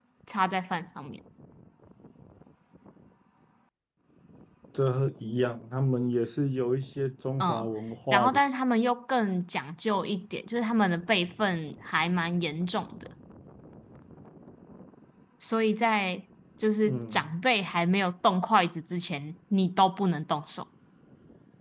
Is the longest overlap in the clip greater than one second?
No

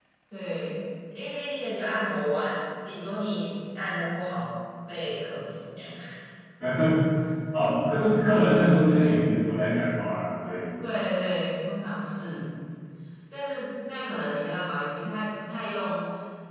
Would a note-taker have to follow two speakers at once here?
No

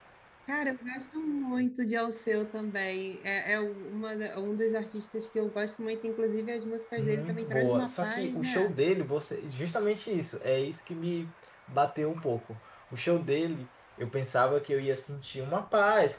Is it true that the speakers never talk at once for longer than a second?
No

